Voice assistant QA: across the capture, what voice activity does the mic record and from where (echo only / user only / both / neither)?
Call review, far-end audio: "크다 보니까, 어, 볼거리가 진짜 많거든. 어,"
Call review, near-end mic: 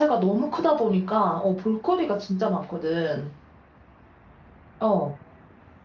echo only